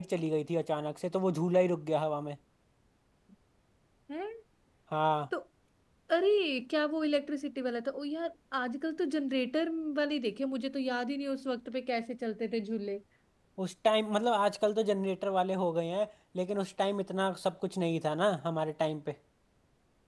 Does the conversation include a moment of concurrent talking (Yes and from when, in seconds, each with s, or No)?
No